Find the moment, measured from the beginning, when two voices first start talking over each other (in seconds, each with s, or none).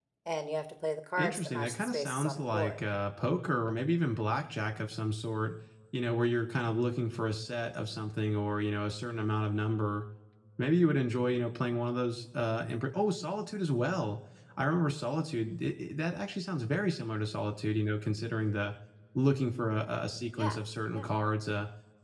1.2 s